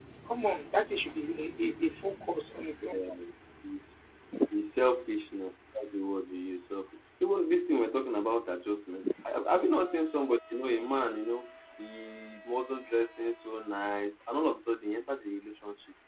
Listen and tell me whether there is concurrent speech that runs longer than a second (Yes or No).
No